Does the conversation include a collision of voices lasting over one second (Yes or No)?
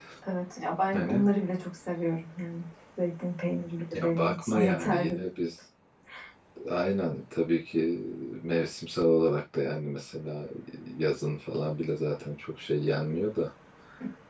Yes